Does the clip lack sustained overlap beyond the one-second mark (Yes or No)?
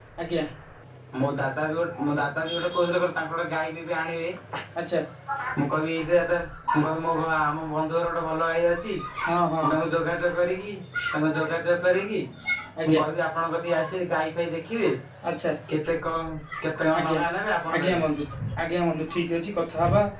Yes